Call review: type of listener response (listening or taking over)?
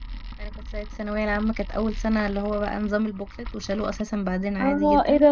taking over